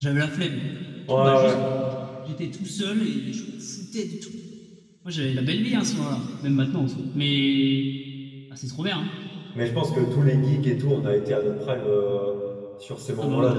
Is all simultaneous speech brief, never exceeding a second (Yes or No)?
Yes